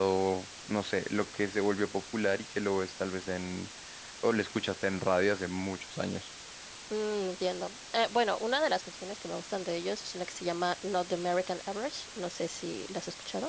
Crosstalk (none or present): none